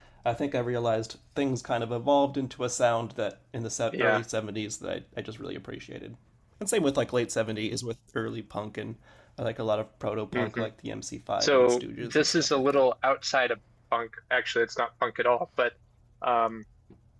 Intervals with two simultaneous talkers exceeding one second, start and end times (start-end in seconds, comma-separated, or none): 11.4-12.8